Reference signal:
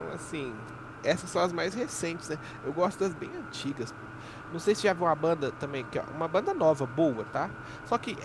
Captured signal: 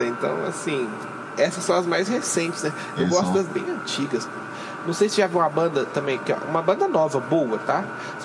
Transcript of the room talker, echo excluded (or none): Eles são